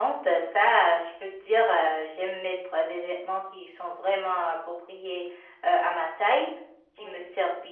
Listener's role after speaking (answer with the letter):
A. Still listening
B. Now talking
A